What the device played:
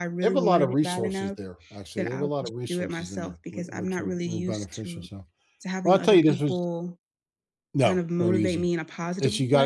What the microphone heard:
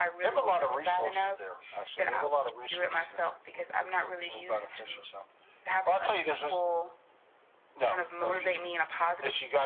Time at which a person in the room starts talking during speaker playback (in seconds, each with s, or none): none